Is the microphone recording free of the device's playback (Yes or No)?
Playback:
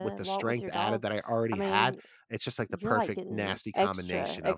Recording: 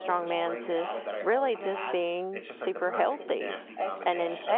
No